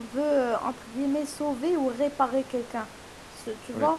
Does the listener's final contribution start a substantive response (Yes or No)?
No